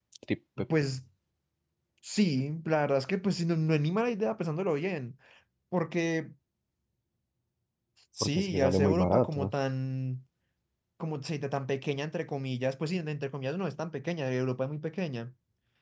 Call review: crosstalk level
present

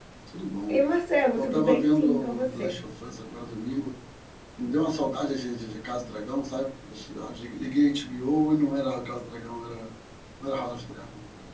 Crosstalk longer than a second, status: present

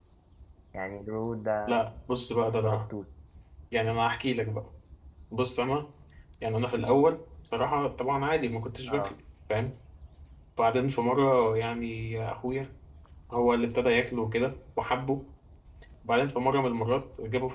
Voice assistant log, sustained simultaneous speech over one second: none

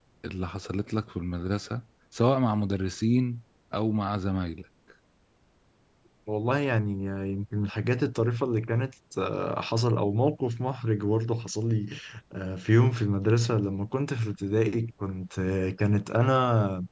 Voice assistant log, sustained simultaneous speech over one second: none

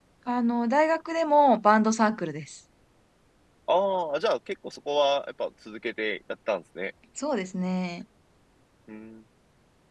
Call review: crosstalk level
none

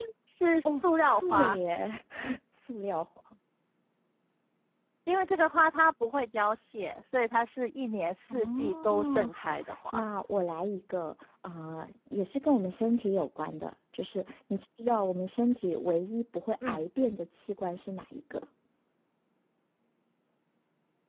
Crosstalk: present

